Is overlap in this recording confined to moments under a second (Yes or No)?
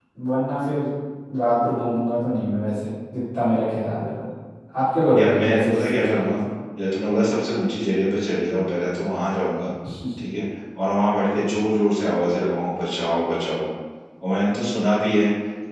No